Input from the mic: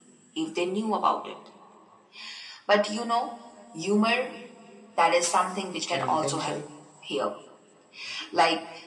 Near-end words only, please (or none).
intention.